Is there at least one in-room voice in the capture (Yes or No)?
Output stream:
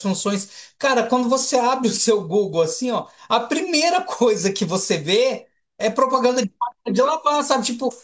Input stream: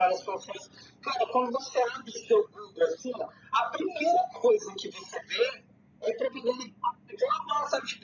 No